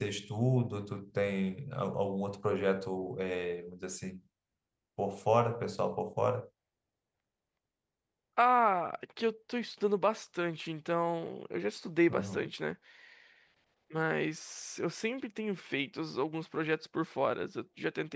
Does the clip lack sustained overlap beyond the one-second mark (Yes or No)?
Yes